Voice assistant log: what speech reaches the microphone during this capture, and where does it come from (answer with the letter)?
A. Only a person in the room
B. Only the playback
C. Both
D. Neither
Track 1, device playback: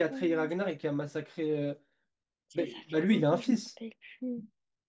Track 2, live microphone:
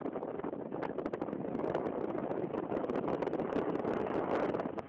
D